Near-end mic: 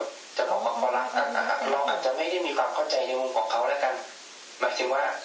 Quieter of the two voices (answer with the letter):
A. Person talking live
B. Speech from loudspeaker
A